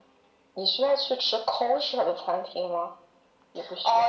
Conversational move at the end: taking over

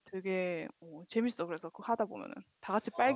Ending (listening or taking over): taking over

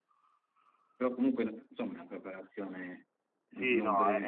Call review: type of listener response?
taking over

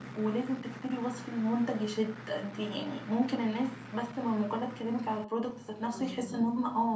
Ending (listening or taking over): listening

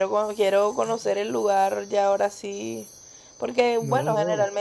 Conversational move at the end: listening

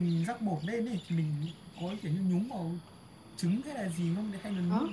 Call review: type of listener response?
taking over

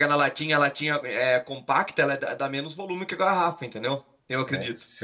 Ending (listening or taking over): taking over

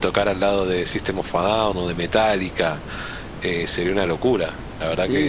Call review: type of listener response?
taking over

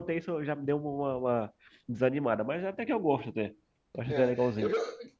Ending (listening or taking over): taking over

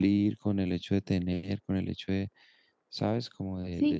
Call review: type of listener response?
taking over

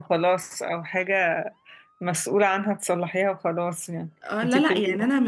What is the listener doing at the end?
taking over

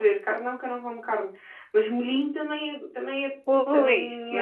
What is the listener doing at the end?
taking over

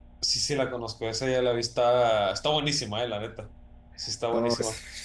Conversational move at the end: taking over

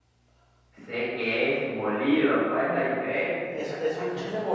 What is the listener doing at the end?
taking over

